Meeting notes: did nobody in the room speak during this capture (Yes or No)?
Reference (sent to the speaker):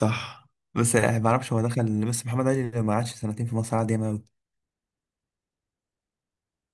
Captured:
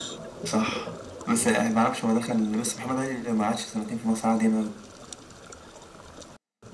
Yes